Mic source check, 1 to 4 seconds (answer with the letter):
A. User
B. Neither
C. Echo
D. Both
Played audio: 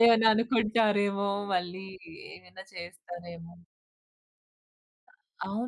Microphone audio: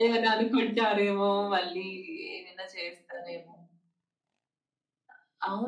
C